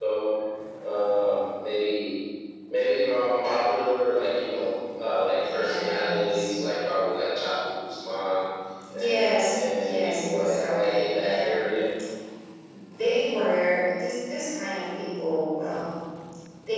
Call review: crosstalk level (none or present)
present